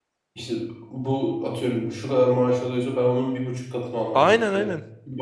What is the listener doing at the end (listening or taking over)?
listening